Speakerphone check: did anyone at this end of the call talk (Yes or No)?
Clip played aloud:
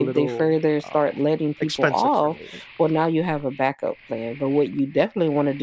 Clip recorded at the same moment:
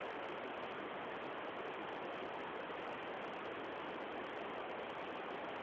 No